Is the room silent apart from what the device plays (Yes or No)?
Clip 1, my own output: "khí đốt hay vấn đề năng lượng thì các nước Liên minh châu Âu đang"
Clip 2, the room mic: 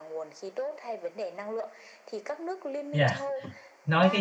No